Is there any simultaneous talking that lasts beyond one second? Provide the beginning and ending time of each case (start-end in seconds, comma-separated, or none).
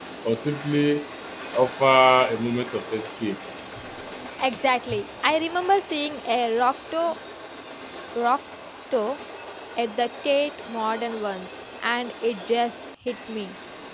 none